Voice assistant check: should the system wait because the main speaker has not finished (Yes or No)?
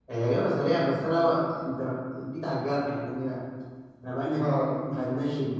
Yes